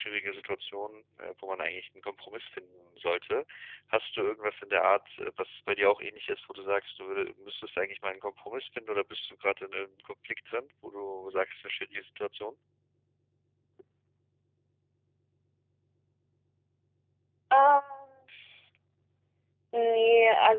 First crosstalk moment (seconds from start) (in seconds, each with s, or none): none